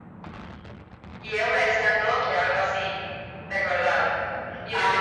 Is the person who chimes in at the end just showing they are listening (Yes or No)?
Yes